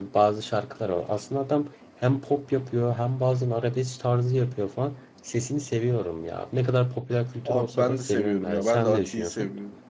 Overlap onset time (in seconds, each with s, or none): 7.5 s